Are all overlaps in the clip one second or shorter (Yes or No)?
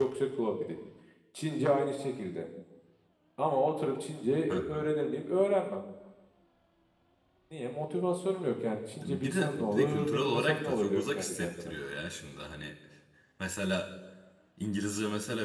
No